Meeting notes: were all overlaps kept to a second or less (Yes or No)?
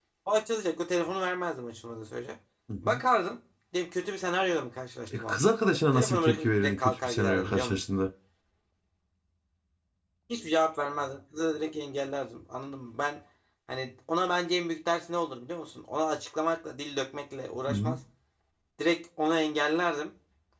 No